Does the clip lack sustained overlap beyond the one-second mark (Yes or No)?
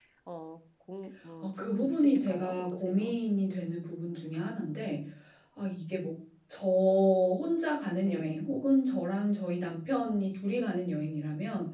No